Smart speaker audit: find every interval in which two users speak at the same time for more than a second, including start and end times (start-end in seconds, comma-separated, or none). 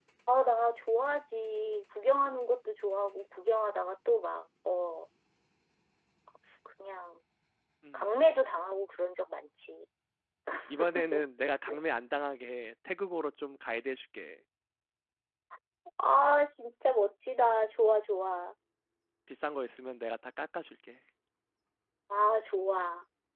none